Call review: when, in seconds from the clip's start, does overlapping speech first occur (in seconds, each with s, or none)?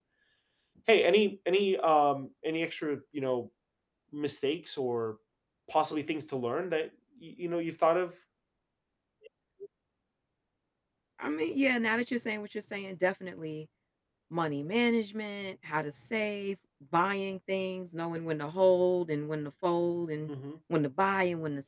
none